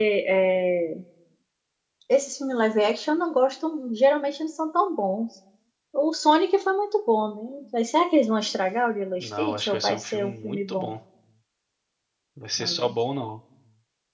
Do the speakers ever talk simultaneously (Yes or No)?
Yes